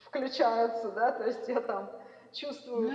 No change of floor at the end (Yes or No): No